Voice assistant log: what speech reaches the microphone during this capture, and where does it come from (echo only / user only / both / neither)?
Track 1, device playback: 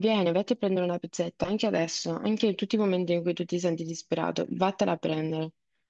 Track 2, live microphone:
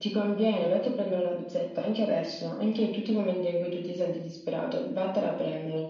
echo only